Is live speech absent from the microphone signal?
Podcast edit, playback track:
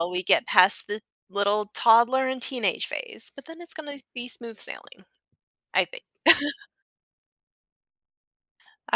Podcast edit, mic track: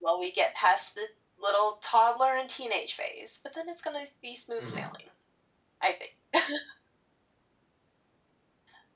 No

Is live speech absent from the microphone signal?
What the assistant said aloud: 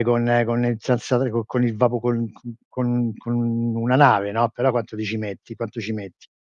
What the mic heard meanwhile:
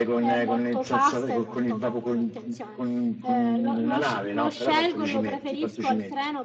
No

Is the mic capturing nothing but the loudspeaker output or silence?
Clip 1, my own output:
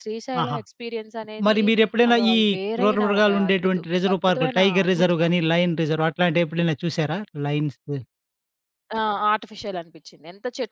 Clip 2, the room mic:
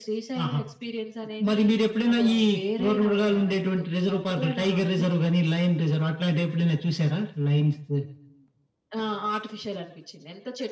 Yes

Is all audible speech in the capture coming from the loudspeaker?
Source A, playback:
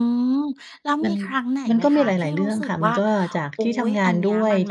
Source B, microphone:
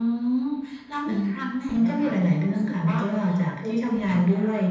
Yes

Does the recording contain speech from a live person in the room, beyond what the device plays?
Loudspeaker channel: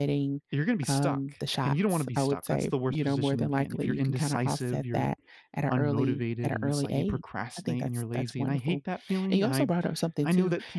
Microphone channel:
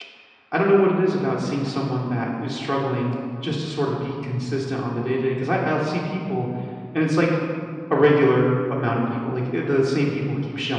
Yes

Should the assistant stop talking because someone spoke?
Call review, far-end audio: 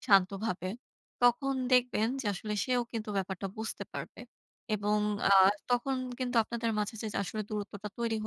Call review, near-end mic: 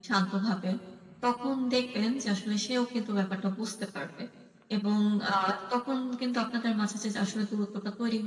No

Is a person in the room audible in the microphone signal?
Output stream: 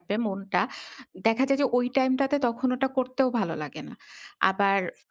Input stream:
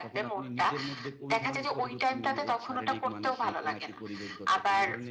Yes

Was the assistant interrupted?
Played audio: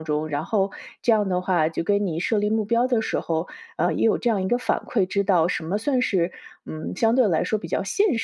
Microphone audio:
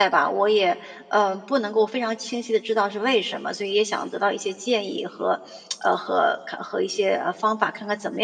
Yes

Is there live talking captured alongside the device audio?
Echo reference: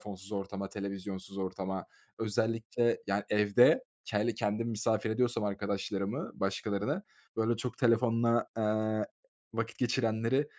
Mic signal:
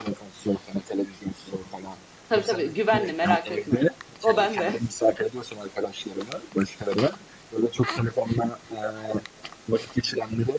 Yes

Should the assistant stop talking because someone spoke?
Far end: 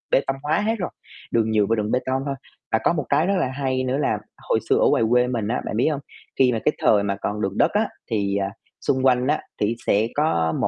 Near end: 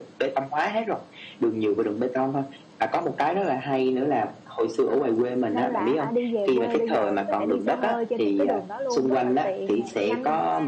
Yes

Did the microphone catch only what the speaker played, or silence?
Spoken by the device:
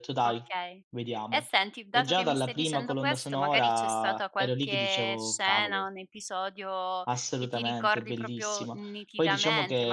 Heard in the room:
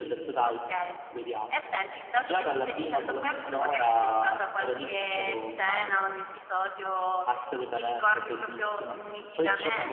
Yes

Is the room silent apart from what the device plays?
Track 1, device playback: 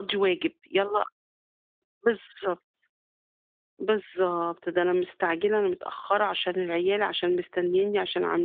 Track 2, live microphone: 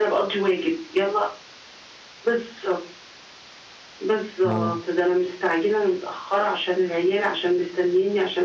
No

